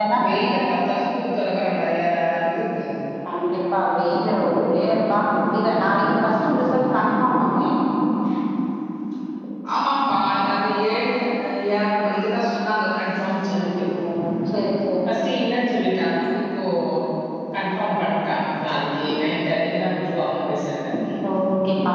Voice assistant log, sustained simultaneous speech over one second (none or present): none